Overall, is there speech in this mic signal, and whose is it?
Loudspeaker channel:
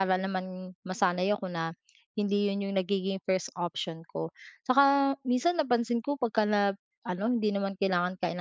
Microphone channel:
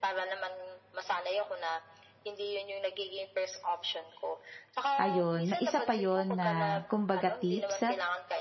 both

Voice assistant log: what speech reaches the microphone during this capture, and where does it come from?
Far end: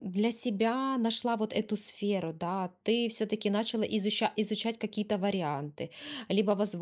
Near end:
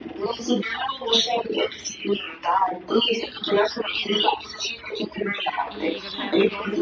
both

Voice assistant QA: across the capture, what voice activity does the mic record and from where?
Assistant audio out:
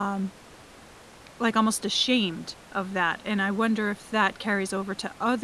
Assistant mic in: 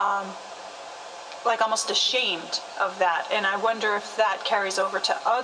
echo only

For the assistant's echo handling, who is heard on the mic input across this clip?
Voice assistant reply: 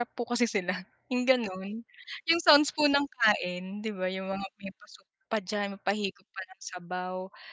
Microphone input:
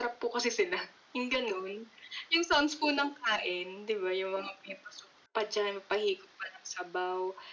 echo only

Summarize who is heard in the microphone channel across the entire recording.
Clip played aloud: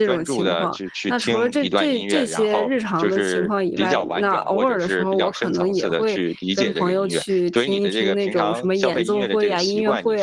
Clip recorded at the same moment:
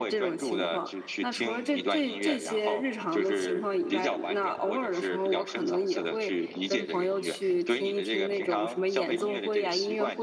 echo only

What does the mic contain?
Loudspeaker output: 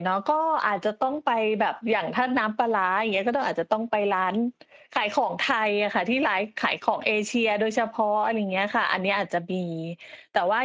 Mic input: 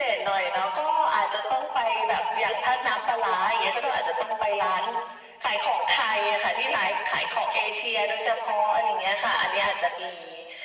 echo only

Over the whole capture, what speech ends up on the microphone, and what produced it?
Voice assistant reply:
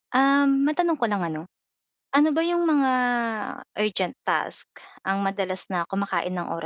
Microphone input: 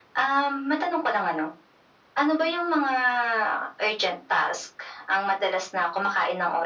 echo only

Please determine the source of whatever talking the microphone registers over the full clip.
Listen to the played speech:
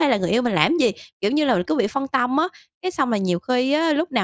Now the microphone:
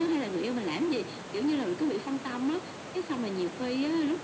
echo only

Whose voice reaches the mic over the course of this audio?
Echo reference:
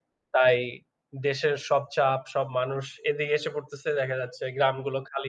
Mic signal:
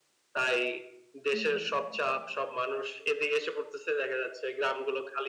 both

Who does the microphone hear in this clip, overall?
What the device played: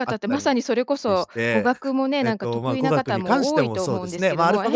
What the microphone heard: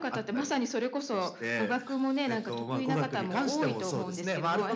echo only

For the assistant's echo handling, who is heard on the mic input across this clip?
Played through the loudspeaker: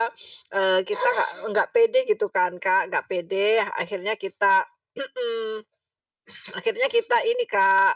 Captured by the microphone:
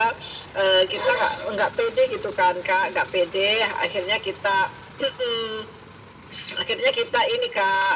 echo only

